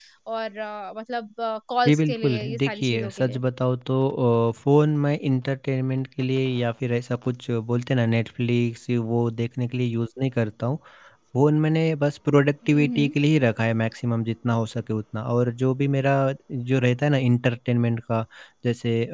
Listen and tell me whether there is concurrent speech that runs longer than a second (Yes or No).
Yes